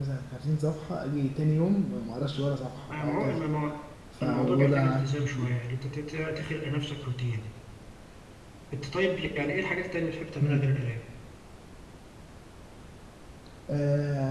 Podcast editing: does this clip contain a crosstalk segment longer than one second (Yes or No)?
Yes